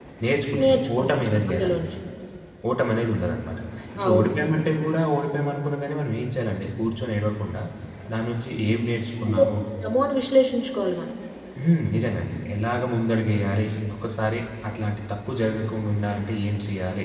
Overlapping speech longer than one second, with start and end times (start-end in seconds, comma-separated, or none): 0.6-1.8